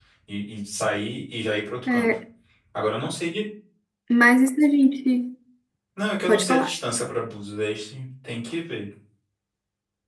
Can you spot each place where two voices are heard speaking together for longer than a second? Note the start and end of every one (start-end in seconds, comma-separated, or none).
none